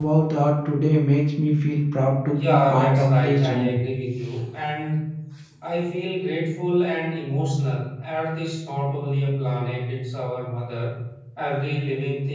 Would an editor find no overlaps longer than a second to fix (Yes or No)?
No